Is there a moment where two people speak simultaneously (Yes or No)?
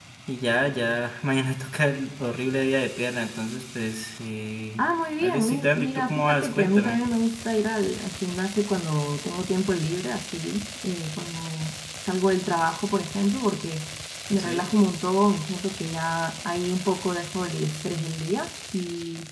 Yes